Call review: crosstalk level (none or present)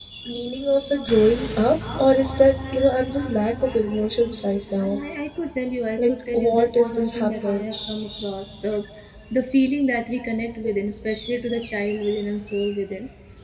present